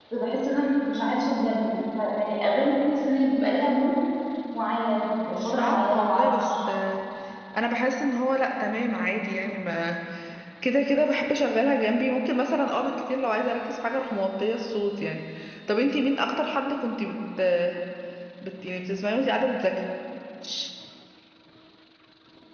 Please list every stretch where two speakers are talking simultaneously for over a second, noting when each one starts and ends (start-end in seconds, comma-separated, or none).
5.3-6.6